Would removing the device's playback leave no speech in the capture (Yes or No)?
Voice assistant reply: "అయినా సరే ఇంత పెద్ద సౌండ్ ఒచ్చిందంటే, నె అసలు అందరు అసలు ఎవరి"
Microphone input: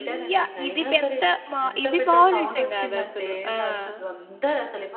No